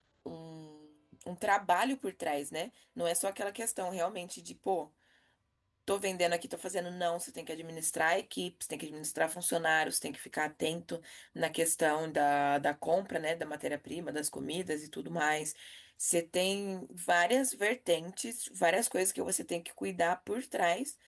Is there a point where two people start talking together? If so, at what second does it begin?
none

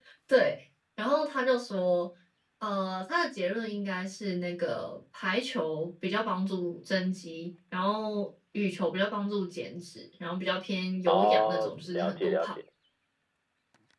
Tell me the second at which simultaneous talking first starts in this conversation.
11.1 s

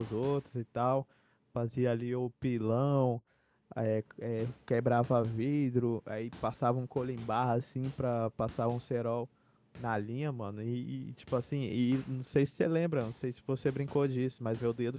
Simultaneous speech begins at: none

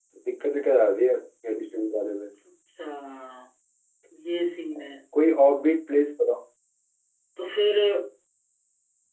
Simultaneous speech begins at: none

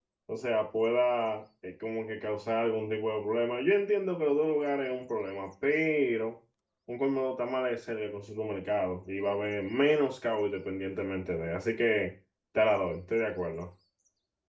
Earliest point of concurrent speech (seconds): none

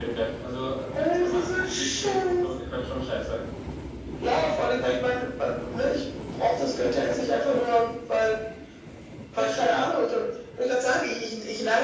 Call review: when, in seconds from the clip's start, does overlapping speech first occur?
1.0 s

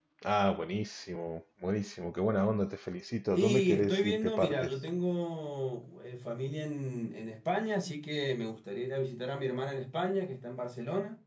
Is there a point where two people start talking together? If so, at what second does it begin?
3.3 s

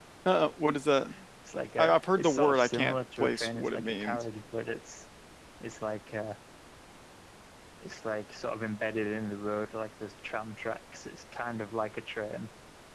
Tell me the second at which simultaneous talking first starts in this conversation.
1.8 s

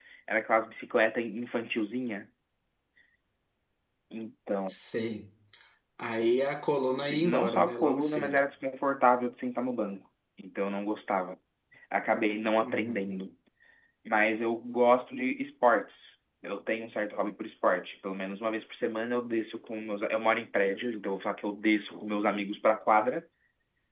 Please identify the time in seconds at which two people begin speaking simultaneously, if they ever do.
6.9 s

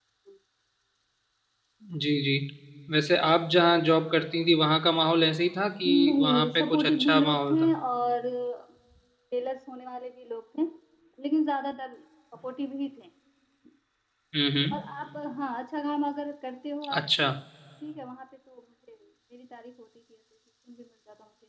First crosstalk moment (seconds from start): 5.9 s

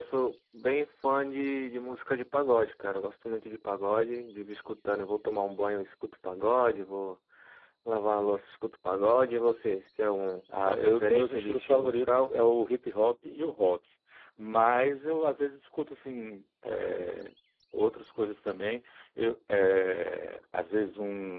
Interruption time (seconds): 10.5 s

